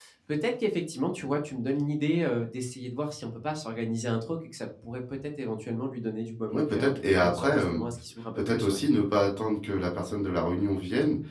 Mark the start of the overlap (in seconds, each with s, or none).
6.5 s